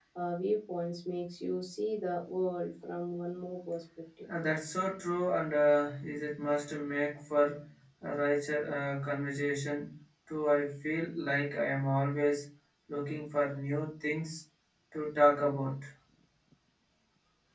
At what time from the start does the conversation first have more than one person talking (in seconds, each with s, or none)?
none